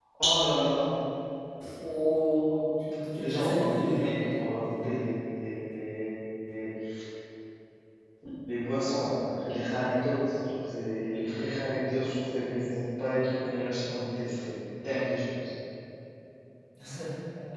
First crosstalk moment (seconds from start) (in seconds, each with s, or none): 3.1 s